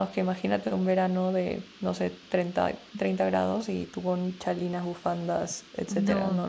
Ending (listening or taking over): taking over